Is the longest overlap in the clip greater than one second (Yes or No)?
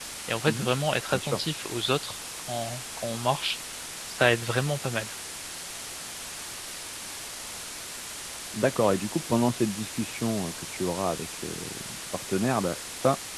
No